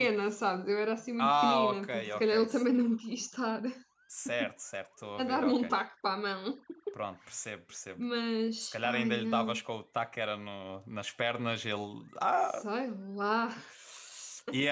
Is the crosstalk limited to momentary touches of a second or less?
No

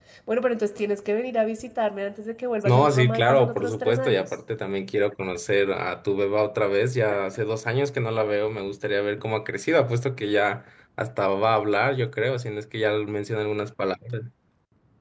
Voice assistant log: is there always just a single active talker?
No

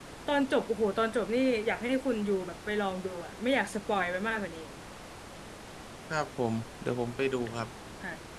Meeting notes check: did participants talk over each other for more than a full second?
No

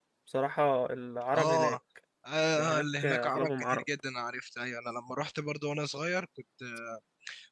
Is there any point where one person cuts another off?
Yes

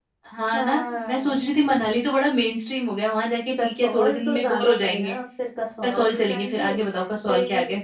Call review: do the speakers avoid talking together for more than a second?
No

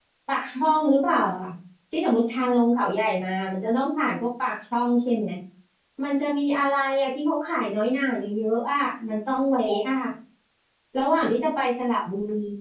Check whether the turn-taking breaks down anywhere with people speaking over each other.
No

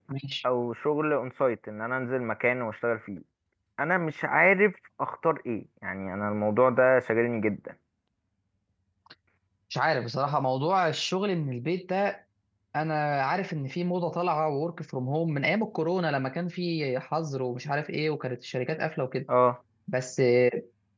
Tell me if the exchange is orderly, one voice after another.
Yes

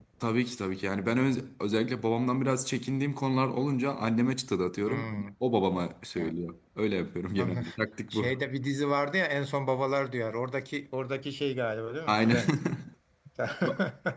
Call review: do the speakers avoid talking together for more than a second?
Yes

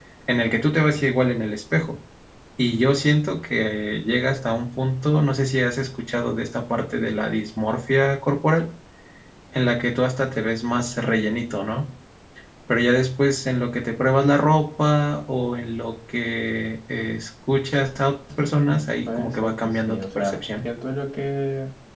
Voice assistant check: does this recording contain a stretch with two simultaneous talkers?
Yes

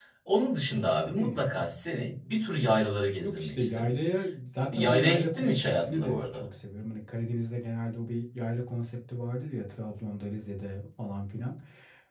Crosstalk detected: Yes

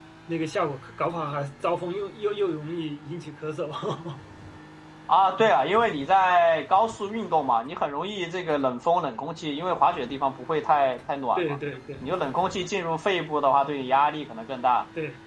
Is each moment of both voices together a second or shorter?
Yes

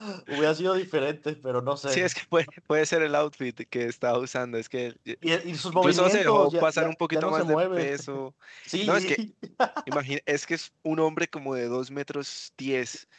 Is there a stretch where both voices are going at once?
Yes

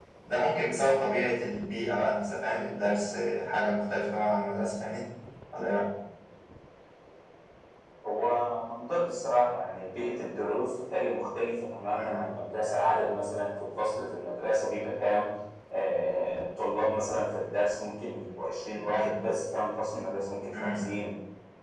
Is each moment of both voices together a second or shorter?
Yes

